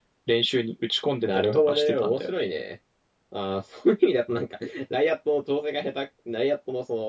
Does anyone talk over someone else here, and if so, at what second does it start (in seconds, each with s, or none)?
1.2 s